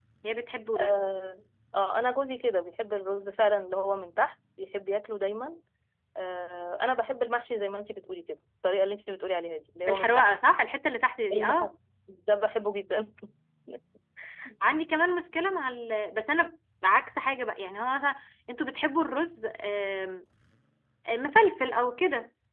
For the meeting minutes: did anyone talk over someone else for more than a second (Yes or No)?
No